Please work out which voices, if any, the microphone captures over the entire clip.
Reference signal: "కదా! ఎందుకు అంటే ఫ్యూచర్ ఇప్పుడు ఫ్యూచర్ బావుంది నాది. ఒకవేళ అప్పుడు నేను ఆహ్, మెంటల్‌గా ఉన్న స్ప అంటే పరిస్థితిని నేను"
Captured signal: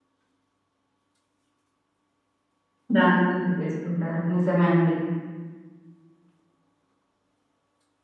user only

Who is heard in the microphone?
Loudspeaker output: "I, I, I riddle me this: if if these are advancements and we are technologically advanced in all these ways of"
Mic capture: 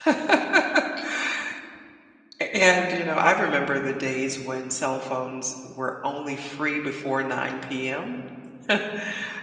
user only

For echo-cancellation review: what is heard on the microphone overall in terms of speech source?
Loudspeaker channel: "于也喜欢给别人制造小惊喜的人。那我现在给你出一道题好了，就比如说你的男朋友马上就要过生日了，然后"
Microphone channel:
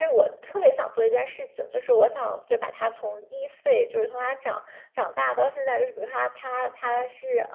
user only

